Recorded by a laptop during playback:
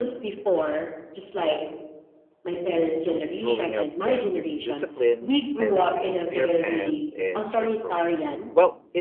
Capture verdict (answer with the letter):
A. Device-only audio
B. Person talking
B